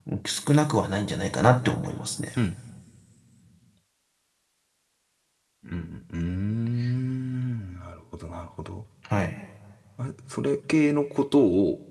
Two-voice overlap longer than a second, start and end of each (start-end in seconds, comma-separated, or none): none